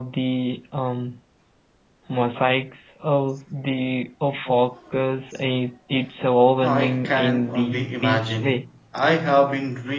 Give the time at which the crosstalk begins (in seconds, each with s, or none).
6.6 s